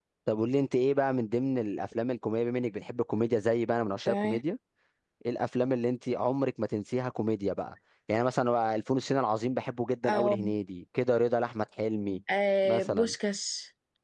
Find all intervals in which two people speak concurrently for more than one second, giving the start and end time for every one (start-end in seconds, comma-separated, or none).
none